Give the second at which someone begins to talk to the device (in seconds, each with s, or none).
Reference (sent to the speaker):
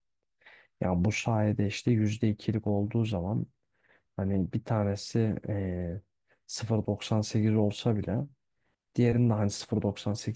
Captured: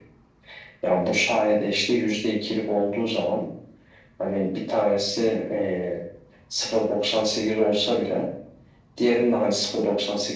none